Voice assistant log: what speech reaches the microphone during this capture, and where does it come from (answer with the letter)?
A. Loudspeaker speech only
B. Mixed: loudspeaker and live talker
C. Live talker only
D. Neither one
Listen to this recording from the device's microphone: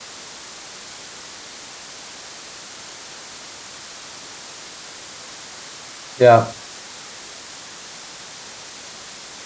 C